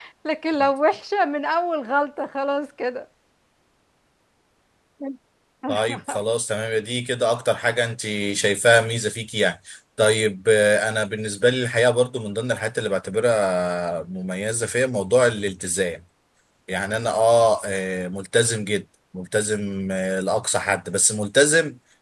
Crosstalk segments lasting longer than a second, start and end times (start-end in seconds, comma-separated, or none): none